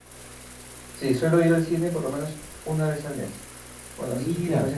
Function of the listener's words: listening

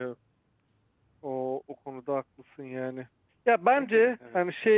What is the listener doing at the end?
listening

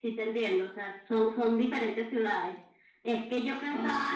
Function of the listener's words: listening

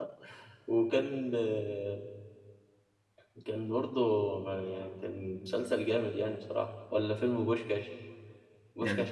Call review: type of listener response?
listening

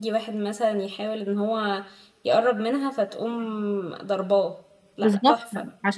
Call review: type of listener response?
taking over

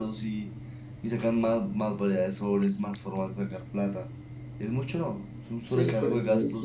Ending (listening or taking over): taking over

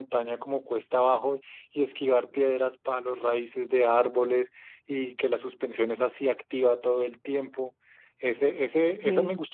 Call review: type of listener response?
listening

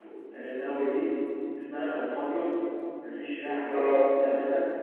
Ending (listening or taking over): listening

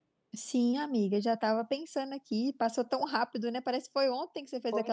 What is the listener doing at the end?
taking over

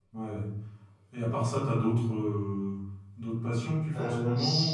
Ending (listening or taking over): taking over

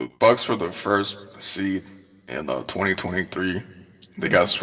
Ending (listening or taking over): listening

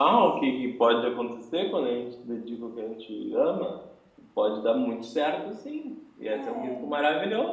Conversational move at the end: listening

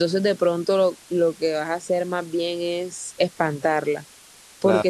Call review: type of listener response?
listening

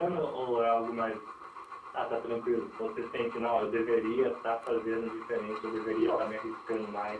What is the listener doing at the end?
listening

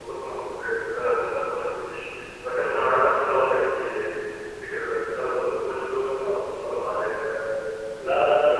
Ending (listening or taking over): taking over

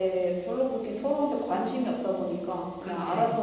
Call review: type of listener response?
listening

